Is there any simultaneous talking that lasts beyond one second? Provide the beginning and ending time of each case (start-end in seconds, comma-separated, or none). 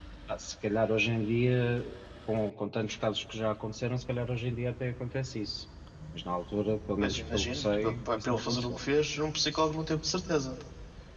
7.0-8.8